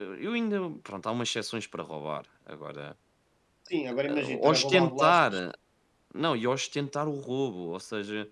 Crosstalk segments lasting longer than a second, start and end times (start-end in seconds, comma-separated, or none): 4.1-5.3